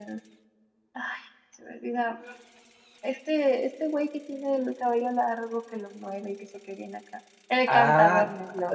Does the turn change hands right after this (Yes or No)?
Yes